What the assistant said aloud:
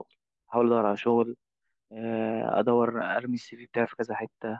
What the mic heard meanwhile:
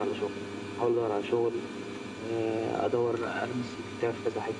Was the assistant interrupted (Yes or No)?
No